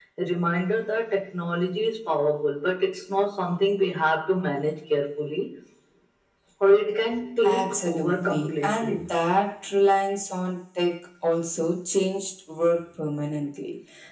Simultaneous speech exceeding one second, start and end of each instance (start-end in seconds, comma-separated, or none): 7.4-9.0